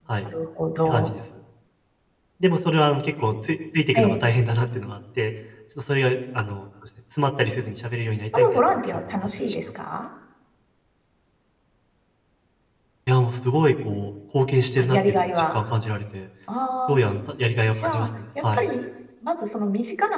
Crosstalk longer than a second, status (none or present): present